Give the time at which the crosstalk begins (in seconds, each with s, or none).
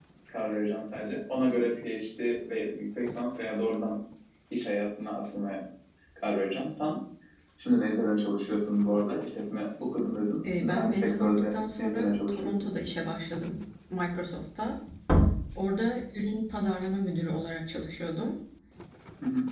10.4 s